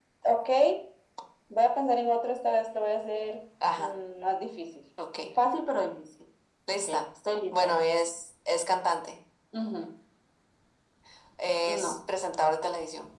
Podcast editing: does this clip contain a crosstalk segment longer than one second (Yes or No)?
No